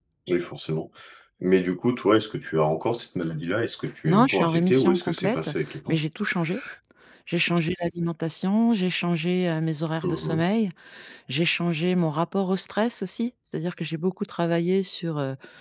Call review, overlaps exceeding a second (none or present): present